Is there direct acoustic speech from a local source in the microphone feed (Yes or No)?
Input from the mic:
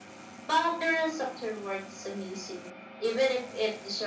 No